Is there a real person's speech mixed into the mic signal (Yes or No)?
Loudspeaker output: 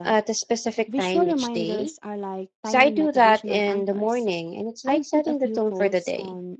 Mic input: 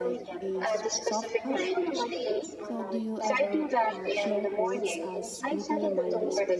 Yes